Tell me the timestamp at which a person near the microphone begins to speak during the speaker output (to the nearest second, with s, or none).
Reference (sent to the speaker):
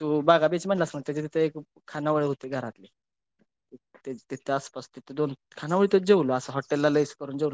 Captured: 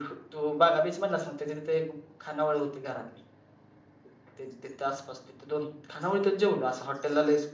none